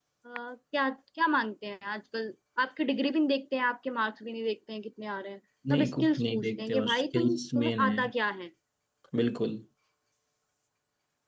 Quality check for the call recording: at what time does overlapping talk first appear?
5.7 s

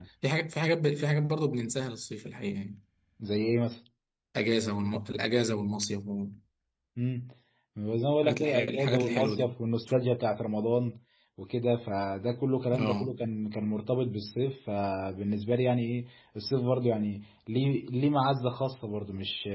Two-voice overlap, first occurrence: 8.2 s

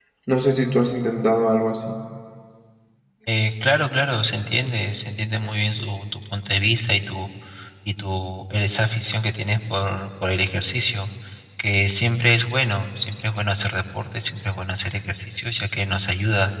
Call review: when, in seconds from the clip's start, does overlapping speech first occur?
none

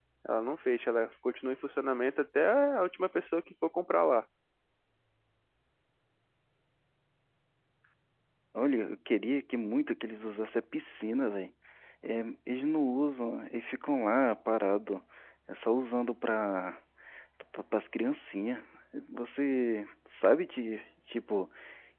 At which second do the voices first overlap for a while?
none

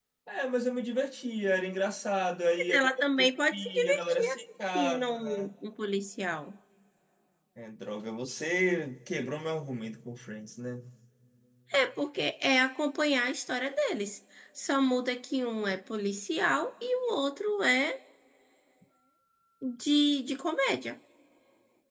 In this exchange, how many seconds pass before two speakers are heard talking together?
2.6 s

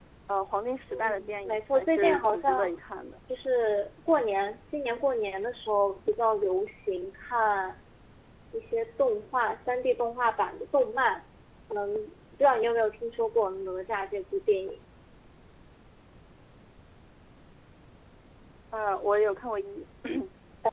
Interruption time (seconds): 0.9 s

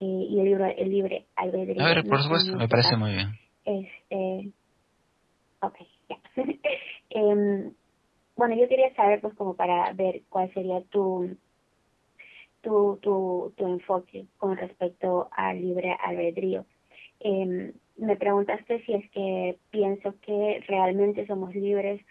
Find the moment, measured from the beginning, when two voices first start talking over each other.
1.8 s

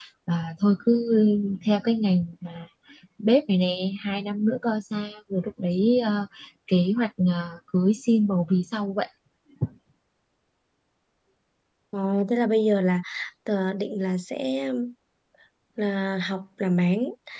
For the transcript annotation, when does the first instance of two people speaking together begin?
none

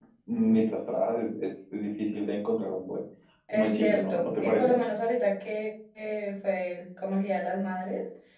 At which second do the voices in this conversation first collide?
3.5 s

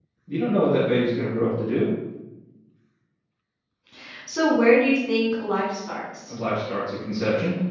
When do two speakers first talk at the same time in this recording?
none

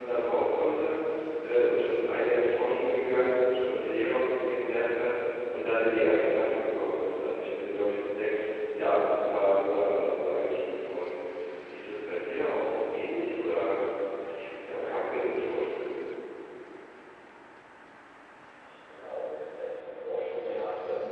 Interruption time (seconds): none

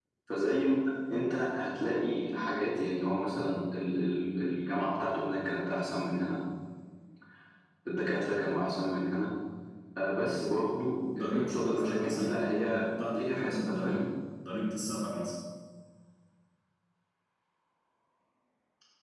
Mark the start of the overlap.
11.1 s

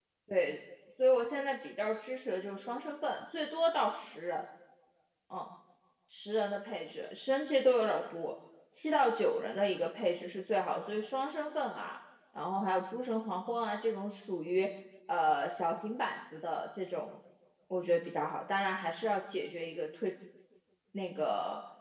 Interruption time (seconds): none

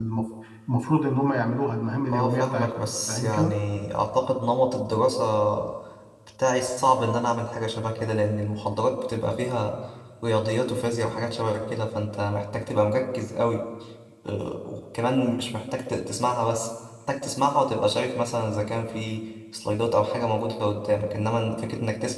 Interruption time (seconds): 2.1 s

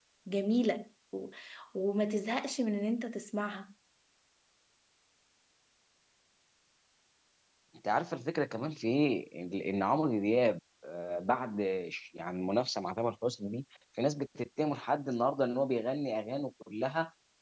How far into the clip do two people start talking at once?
none

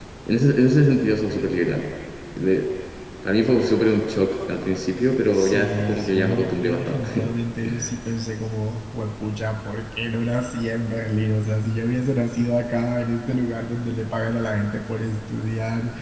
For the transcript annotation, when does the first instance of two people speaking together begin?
5.3 s

